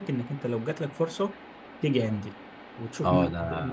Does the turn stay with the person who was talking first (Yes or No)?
No